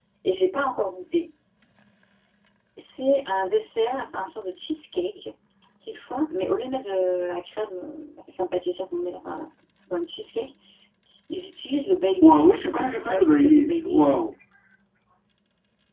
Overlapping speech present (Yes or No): Yes